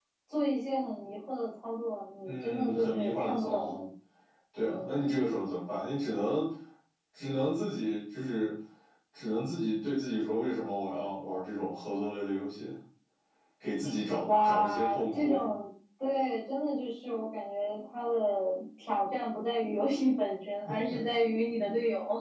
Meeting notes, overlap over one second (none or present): present